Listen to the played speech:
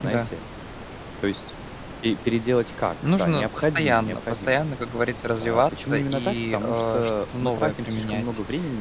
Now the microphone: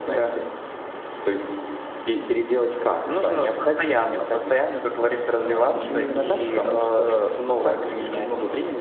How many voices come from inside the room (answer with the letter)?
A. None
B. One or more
B